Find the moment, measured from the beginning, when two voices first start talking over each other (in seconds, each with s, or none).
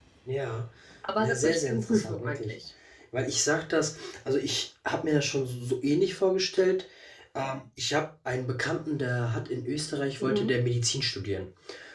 1.2 s